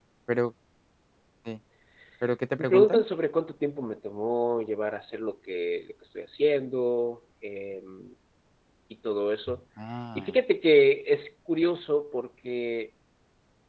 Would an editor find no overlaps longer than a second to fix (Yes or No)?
Yes